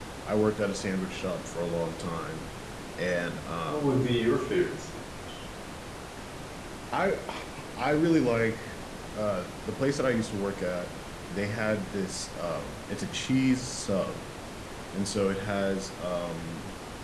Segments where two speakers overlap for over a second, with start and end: none

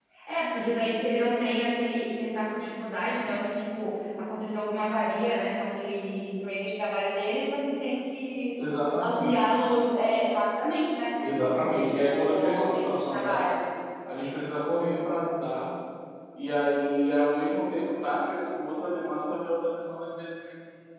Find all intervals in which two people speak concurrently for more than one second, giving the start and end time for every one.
11.2-13.4

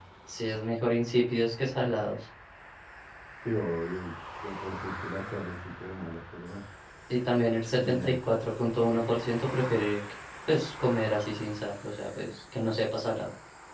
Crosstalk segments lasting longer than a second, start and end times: none

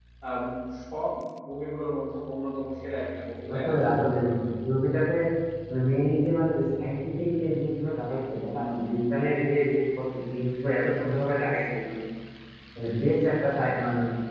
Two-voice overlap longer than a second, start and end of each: none

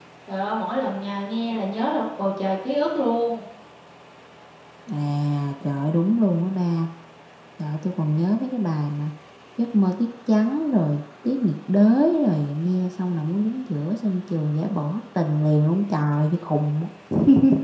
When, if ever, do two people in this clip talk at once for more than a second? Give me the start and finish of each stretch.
none

